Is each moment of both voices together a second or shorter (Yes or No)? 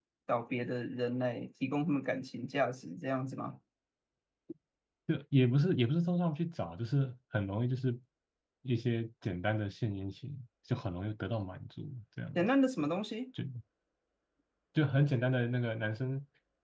Yes